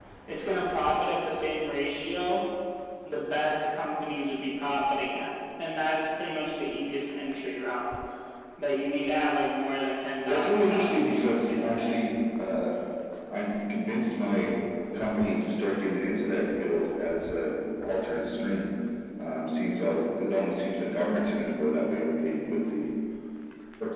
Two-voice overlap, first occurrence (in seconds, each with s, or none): 10.2 s